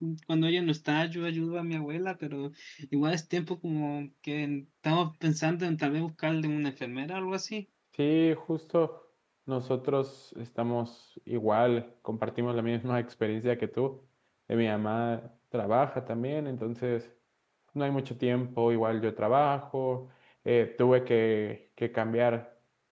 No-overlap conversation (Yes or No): Yes